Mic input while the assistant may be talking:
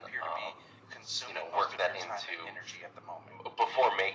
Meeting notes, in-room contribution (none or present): none